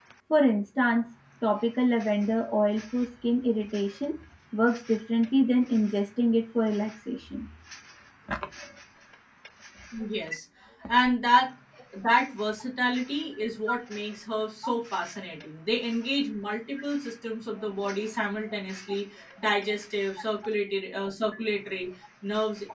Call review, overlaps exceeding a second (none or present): none